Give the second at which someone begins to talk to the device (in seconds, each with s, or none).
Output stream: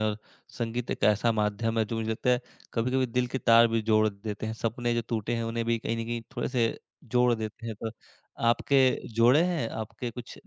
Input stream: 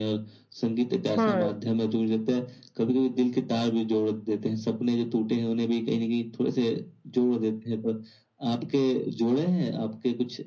1.2 s